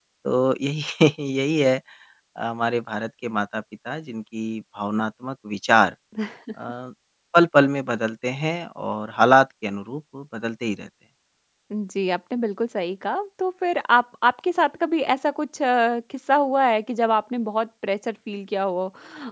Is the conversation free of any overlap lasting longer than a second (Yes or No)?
Yes